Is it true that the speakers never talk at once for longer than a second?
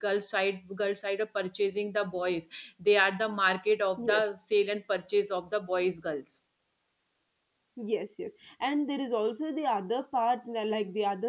Yes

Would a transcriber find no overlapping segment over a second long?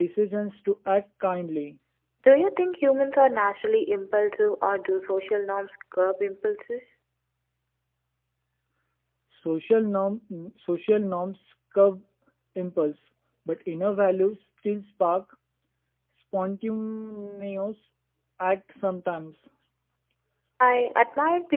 Yes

